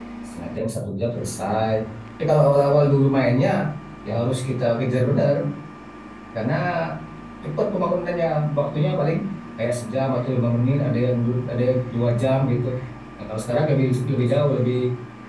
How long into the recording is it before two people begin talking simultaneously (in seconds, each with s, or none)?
none